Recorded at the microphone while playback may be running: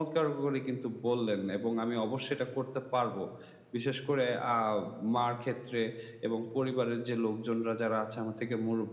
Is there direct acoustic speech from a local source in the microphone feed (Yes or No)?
No